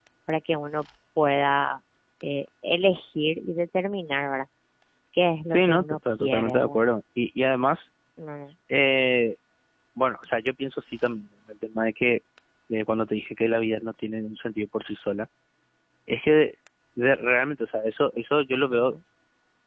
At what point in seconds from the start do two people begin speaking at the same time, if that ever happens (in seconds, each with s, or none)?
5.5 s